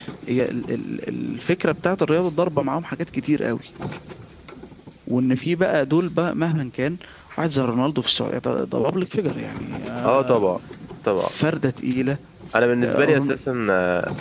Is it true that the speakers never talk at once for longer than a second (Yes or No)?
Yes